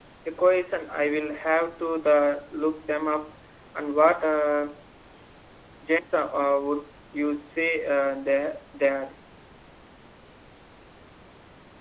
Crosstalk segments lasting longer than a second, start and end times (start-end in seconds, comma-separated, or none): none